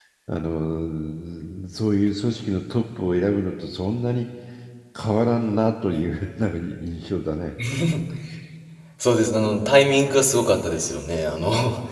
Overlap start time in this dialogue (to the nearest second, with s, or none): none